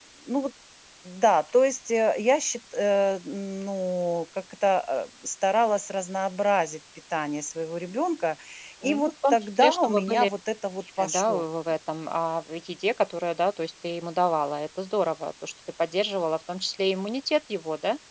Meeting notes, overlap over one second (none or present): present